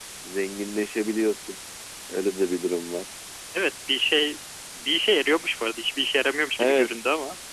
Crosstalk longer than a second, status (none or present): none